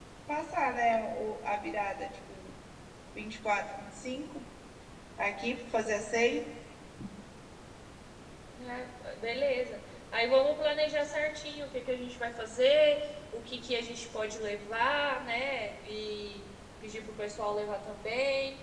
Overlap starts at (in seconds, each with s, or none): none